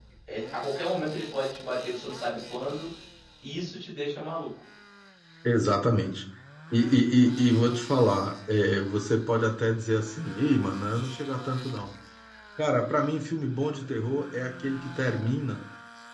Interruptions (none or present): none